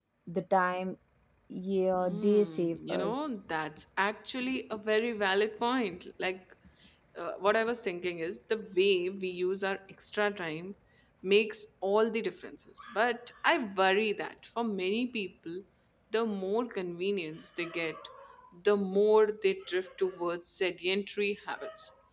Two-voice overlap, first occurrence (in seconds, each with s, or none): 2.0 s